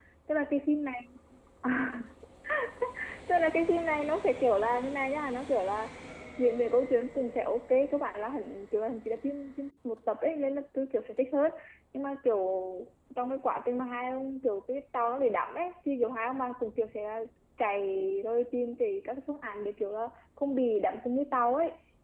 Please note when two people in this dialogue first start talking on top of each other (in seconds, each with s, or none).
none